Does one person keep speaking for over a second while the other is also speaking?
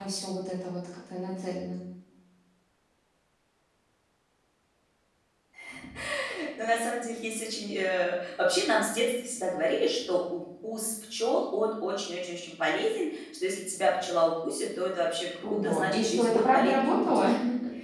Yes, from 15.4 s

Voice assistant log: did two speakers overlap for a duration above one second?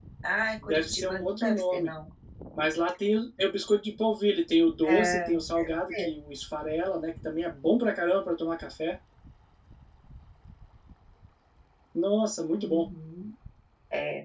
Yes, from 0.6 s

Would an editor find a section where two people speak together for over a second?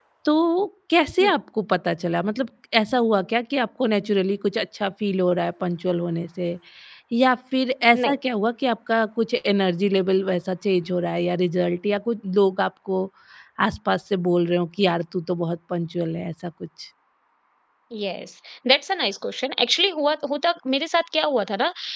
No

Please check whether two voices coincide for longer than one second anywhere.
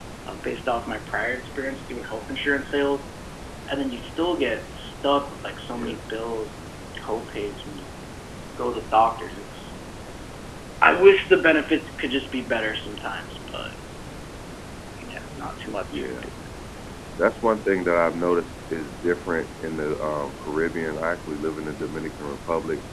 No

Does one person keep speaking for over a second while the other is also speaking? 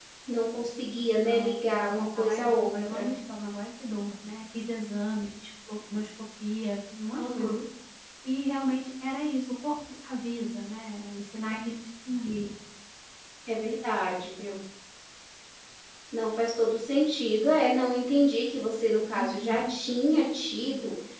Yes, from 1.2 s

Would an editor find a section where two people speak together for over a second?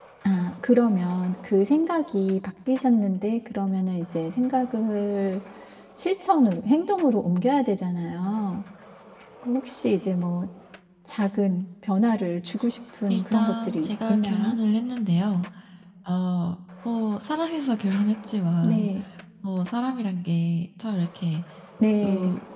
Yes, from 13.1 s

